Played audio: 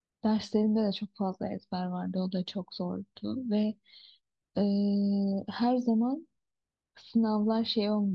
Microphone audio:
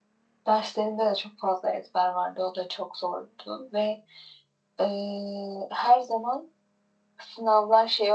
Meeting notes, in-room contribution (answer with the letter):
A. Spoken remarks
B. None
B